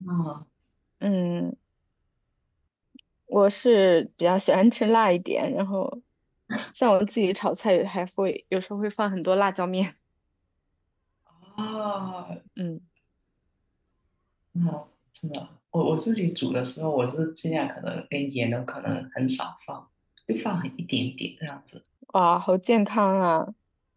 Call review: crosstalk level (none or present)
none